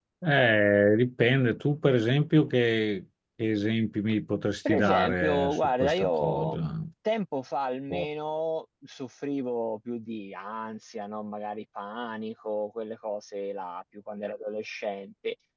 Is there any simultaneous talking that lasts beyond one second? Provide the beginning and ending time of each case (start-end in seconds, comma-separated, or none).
4.7-6.7